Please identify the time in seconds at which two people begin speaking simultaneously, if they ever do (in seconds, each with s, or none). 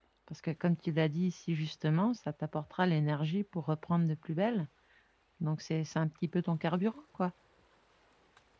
none